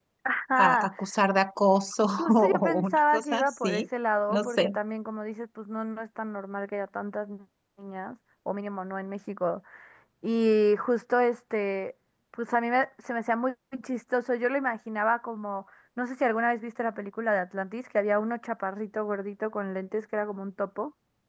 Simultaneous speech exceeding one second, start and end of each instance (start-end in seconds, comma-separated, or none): 2.0-3.8